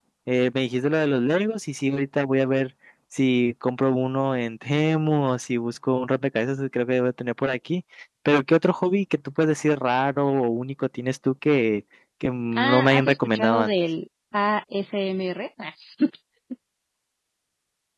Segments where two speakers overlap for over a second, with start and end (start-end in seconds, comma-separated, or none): 12.5-13.7